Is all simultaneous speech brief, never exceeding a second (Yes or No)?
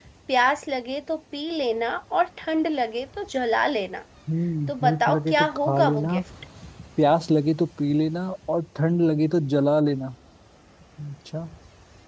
No